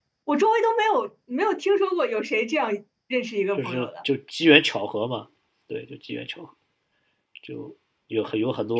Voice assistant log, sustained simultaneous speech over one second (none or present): none